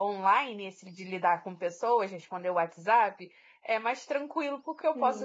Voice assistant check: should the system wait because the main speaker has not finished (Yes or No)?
No